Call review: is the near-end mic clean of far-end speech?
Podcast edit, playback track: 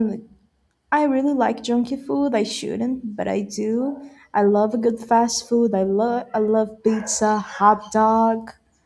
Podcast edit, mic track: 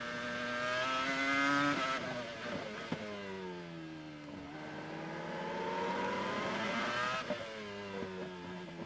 Yes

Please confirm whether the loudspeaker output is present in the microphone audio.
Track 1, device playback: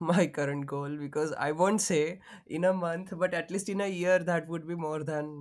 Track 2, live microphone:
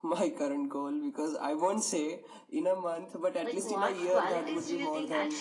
Yes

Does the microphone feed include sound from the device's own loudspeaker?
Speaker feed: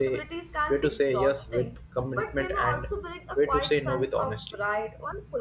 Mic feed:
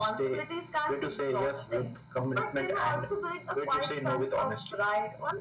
Yes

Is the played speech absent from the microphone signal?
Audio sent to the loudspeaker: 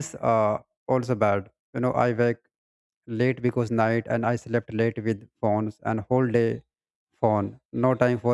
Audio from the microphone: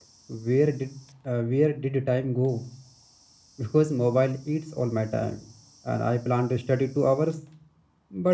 Yes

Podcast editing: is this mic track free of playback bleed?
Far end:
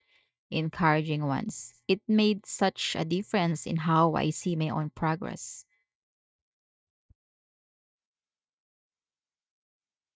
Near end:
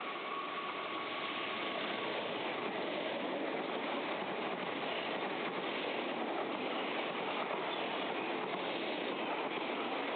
Yes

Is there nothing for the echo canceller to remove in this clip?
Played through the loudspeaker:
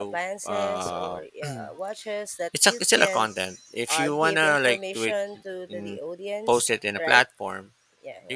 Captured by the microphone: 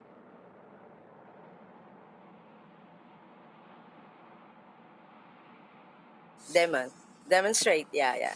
Yes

